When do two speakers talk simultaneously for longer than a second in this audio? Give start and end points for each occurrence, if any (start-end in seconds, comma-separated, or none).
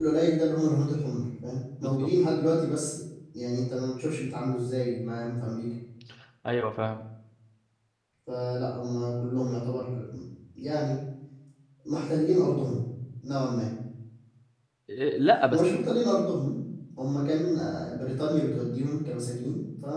none